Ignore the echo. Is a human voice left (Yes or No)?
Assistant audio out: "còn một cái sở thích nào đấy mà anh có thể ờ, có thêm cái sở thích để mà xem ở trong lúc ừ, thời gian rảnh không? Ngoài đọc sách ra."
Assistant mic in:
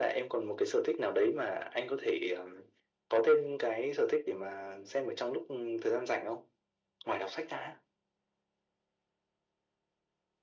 No